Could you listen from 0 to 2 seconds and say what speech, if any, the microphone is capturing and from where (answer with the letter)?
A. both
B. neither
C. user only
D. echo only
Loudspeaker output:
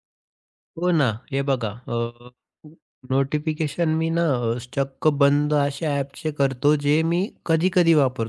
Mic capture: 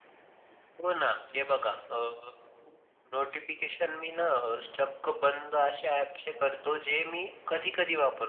D